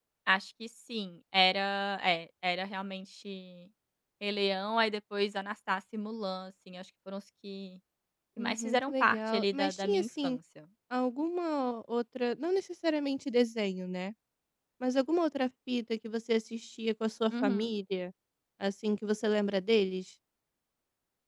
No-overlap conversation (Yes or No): No